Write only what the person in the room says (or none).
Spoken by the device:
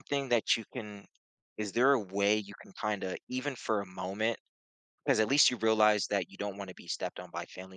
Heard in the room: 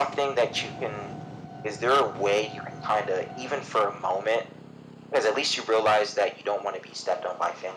none